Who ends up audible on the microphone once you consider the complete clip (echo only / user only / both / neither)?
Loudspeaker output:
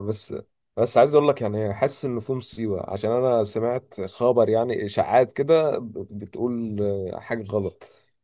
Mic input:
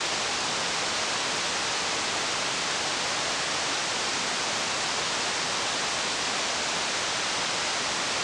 neither